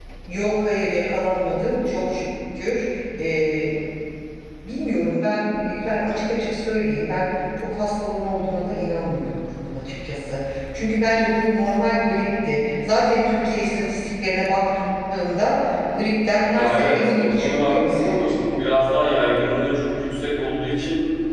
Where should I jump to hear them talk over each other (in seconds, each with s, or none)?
16.5 s